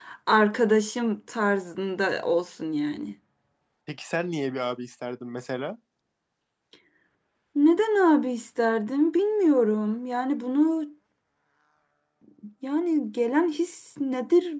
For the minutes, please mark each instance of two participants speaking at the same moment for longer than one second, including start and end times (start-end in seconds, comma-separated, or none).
none